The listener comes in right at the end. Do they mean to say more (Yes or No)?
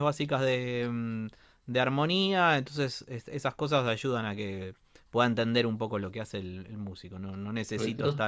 No